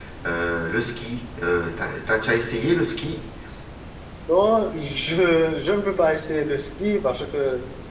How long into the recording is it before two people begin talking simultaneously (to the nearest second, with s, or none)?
none